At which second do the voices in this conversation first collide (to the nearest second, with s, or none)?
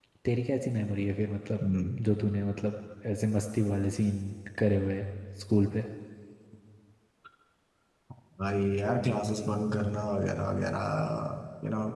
none